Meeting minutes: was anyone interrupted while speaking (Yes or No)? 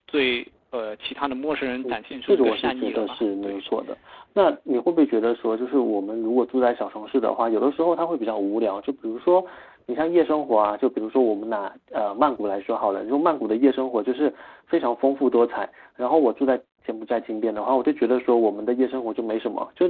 Yes